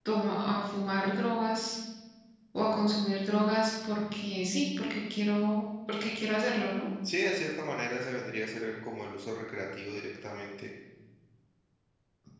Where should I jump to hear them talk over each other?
none

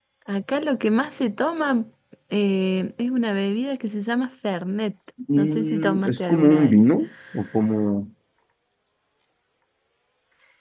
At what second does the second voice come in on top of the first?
5 s

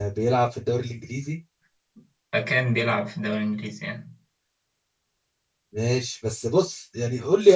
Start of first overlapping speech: none

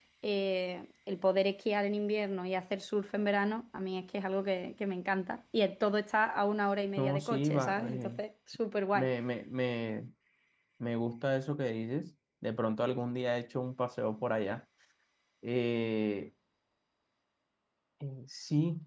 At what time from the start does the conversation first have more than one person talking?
7 s

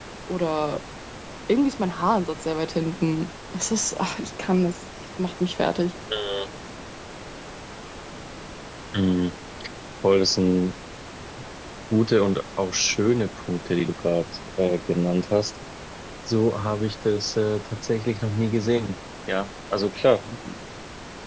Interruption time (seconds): none

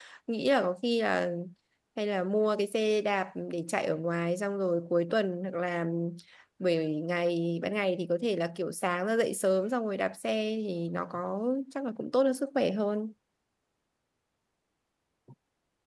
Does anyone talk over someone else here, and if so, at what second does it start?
none

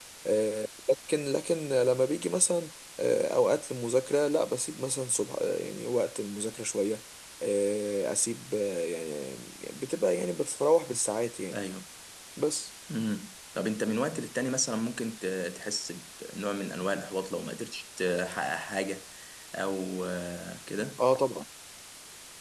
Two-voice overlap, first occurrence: none

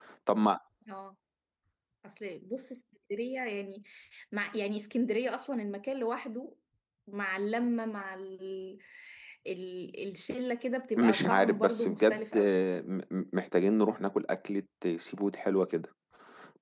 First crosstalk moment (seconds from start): 11 s

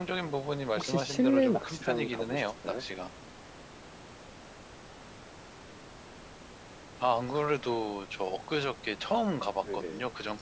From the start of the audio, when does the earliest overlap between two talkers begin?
1 s

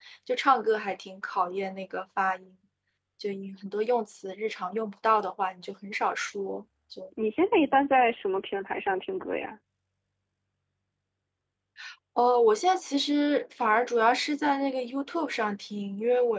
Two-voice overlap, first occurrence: none

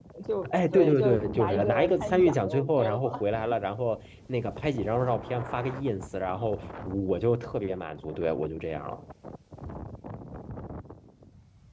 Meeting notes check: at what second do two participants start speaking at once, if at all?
1 s

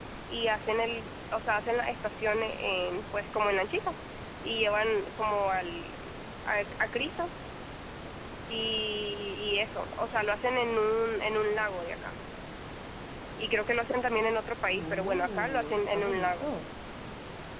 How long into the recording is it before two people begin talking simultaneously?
15 s

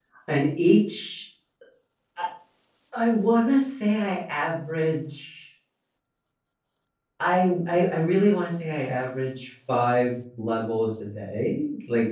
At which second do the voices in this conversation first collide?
none

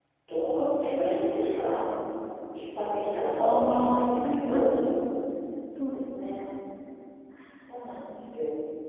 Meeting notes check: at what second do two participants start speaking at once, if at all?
3 s

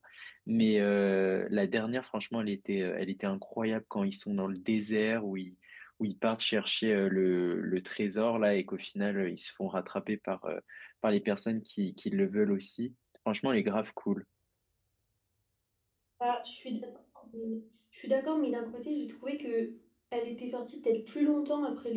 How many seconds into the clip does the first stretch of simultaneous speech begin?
none

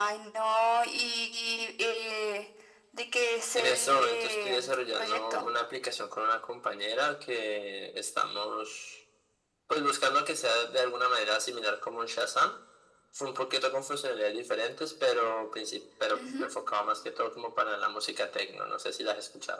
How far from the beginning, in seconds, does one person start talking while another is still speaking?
4 s

